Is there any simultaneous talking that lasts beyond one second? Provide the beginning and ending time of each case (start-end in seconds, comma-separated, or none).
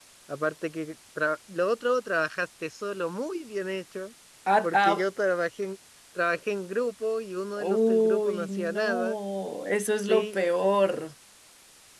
7.6-9.2